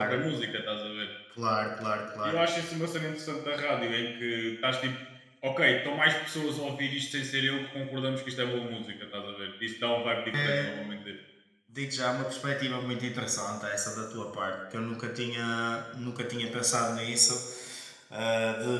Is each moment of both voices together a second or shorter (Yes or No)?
Yes